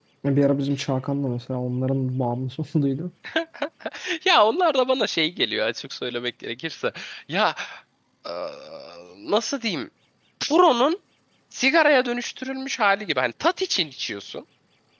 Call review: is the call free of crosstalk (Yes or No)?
Yes